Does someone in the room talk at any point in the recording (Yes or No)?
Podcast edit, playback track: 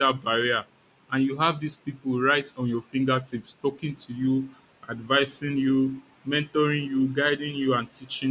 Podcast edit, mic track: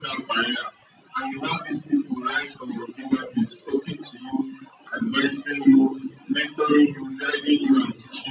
No